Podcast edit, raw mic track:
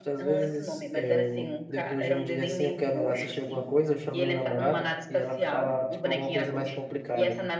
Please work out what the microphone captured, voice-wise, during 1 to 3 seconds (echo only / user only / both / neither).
both